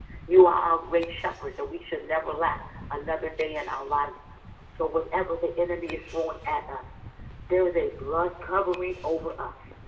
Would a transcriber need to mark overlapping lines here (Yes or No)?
No